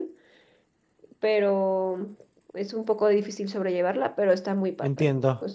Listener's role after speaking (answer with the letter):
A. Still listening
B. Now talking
B